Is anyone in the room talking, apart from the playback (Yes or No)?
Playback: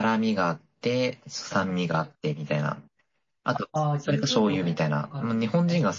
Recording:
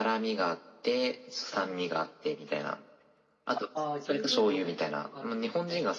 No